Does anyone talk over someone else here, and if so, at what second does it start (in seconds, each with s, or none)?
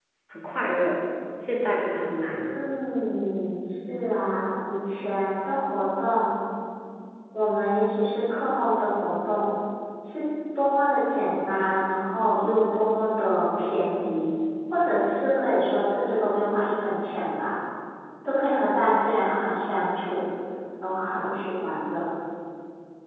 none